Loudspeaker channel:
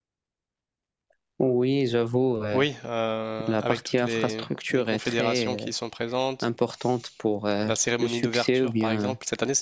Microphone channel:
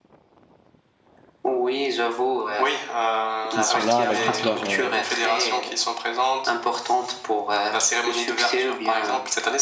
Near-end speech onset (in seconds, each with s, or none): 3.5 s